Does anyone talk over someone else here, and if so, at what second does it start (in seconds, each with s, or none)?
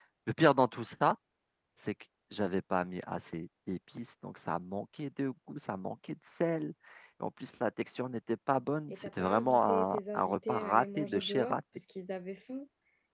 8.9 s